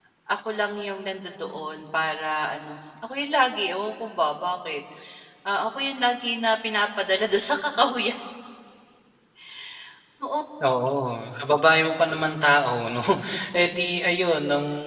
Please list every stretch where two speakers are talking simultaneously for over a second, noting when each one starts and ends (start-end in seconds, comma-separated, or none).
none